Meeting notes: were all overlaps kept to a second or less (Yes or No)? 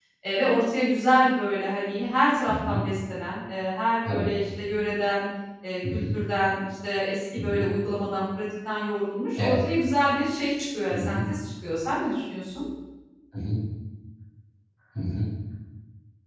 Yes